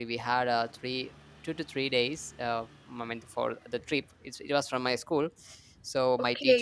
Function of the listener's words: taking over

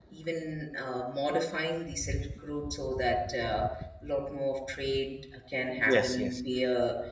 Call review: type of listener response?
listening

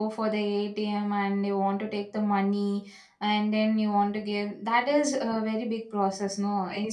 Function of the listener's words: taking over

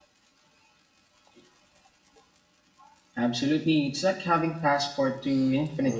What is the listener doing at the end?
taking over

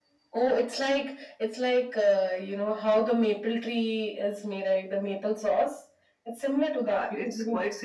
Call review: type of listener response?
taking over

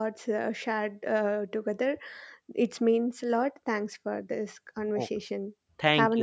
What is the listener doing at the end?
taking over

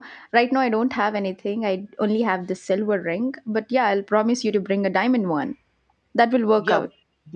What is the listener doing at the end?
taking over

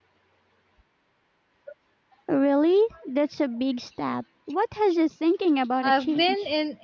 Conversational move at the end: taking over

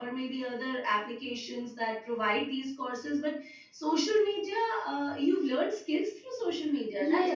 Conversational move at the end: taking over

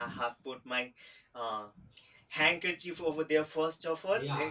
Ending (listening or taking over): taking over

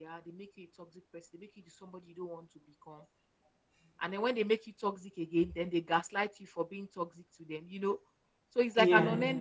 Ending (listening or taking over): listening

